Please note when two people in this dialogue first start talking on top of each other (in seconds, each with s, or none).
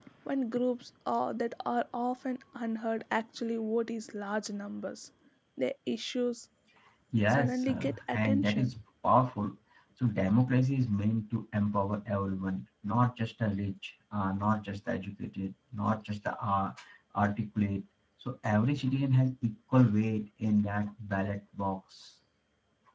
7.3 s